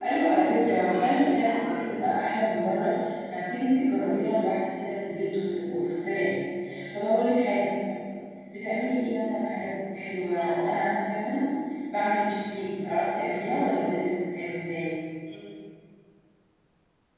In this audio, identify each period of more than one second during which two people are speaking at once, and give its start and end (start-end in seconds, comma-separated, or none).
0.7-2.1